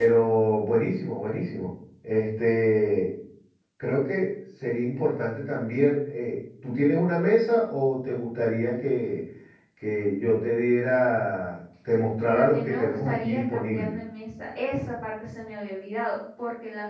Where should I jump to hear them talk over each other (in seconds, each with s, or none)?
12.3 s